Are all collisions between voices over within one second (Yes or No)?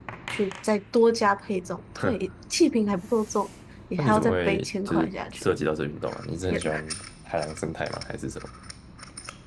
No